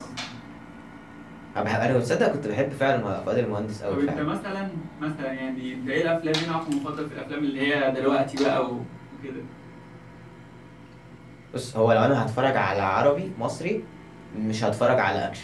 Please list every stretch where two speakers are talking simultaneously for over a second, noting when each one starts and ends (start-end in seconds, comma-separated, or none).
none